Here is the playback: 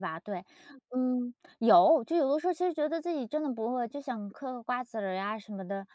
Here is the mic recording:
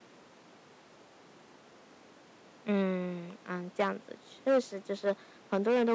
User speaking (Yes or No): Yes